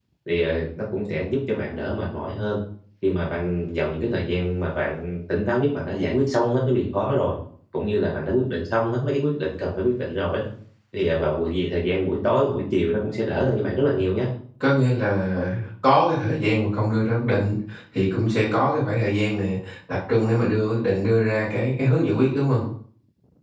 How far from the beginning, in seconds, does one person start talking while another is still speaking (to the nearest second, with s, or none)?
none